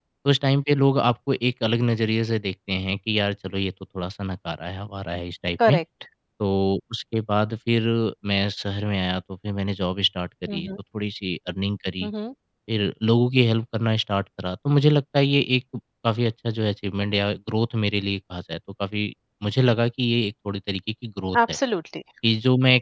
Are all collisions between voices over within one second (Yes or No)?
Yes